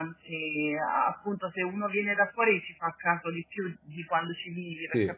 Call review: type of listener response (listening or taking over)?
listening